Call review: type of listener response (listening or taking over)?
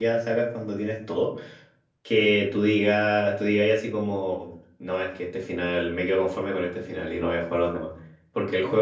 listening